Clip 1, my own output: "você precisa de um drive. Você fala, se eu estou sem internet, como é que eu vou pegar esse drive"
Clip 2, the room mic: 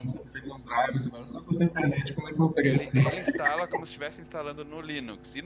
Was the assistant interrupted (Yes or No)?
Yes